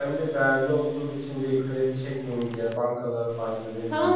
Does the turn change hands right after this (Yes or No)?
Yes